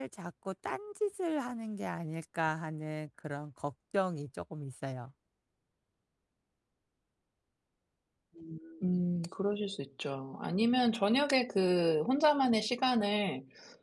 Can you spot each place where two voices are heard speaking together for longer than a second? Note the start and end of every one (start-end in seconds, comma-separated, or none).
none